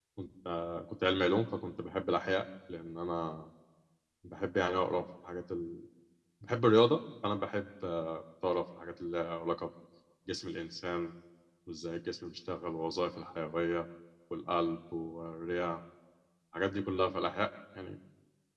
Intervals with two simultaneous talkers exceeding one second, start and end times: none

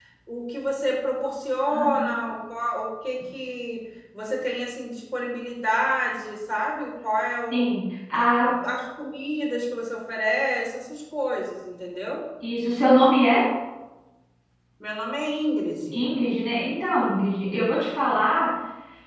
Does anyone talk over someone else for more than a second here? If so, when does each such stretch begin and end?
none

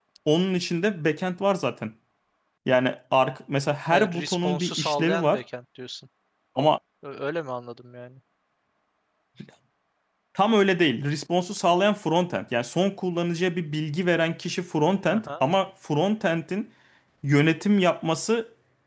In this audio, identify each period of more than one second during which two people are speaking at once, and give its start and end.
3.9-5.4

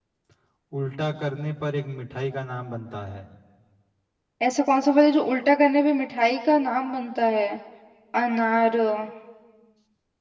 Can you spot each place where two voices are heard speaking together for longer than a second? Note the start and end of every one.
none

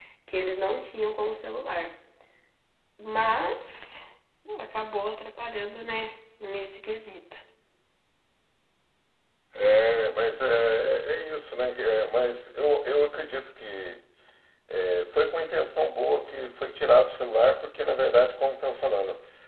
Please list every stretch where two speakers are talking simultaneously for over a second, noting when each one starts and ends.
none

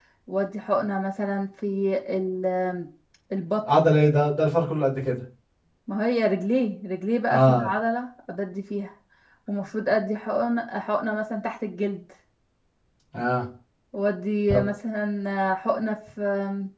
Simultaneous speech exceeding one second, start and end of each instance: none

